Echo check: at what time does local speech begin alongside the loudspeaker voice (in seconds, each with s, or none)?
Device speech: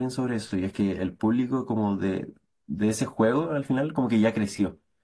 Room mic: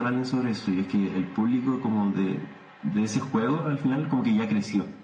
none